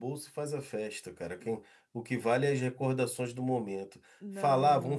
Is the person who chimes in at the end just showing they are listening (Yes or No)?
Yes